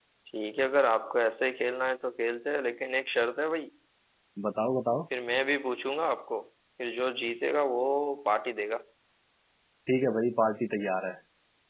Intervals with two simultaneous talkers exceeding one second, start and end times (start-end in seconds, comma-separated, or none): none